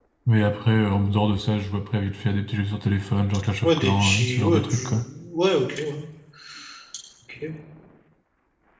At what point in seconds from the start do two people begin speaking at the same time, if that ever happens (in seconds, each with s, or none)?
3.6 s